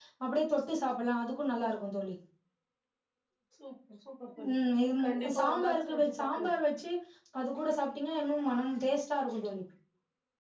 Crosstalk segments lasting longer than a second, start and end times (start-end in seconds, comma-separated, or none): 5.0-6.5